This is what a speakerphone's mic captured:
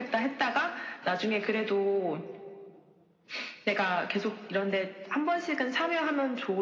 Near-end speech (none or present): none